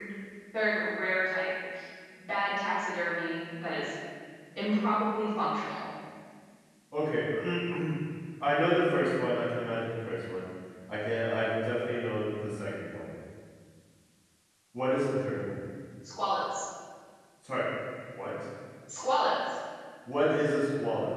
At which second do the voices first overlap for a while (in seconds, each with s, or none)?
none